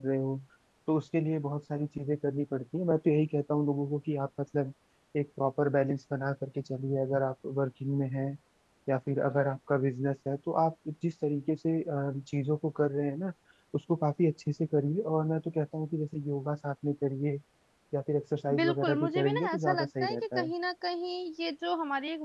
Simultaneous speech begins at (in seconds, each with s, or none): 18.6 s